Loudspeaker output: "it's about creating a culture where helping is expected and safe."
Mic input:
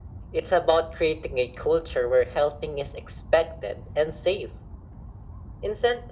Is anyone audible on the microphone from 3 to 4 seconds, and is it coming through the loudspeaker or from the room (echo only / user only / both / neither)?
echo only